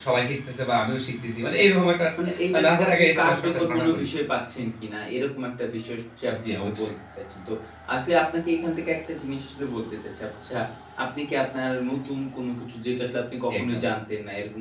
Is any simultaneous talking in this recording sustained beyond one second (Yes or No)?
Yes